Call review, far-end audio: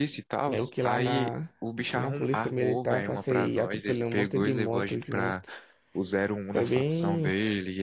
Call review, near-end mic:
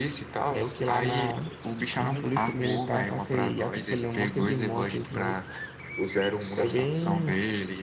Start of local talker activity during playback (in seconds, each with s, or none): none